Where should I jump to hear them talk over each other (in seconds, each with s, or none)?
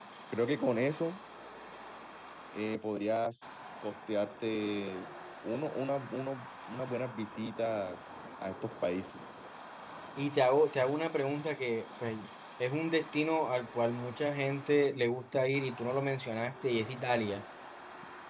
none